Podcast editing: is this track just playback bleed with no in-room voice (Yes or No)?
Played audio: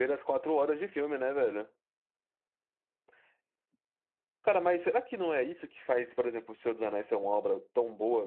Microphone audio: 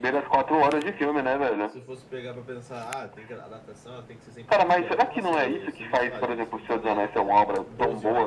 No